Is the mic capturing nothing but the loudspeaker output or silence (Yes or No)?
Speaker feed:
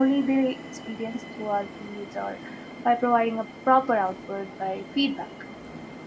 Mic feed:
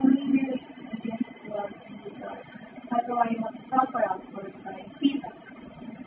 Yes